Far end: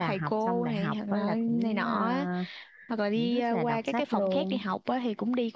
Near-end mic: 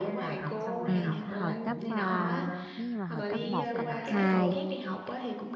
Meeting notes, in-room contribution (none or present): present